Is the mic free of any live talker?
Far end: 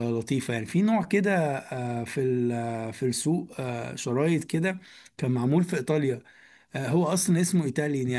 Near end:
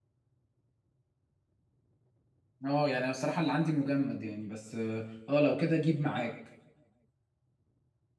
No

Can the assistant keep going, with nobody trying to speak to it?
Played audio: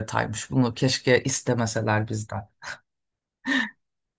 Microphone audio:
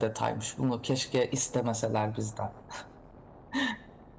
Yes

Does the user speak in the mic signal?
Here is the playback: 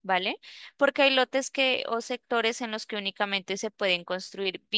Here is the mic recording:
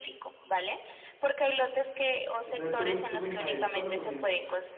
Yes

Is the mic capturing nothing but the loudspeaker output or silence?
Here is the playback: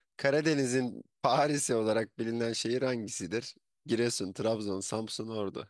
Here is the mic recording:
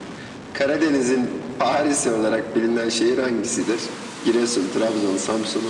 Yes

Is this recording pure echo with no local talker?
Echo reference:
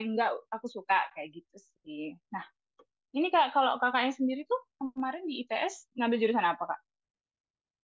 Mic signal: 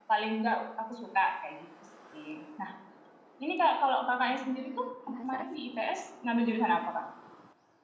No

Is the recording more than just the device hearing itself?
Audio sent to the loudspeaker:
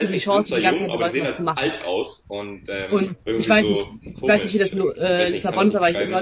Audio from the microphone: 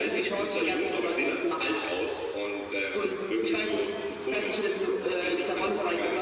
No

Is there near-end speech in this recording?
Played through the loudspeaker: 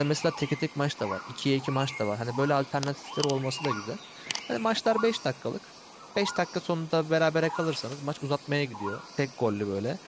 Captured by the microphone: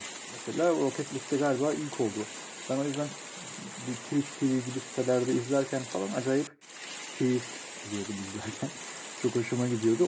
Yes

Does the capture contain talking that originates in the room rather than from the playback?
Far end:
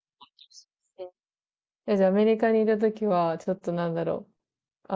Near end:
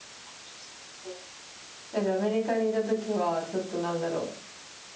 No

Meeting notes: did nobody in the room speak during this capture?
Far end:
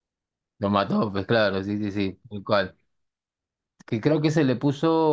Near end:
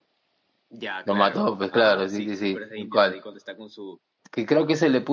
No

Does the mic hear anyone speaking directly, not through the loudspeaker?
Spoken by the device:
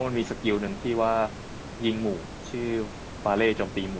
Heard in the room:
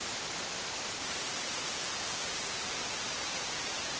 No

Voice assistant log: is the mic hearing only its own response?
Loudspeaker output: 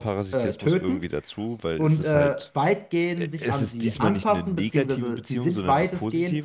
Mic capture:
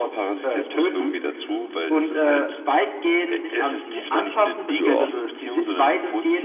No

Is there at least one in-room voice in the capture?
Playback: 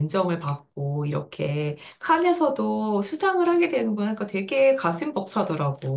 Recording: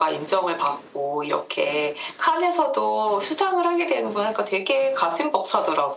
No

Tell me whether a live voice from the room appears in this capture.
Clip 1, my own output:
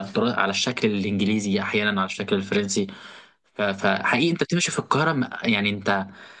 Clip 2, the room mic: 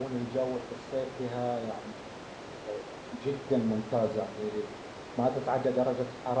Yes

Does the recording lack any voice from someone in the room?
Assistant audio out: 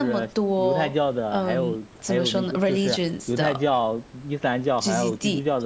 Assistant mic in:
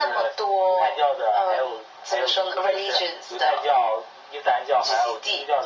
Yes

